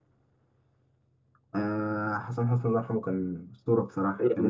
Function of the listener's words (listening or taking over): taking over